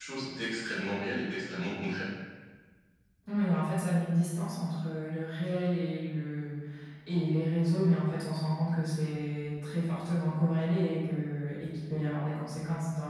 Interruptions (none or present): none